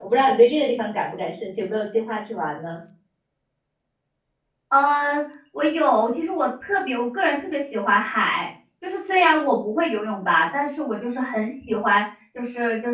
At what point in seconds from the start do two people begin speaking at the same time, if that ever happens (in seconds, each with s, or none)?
none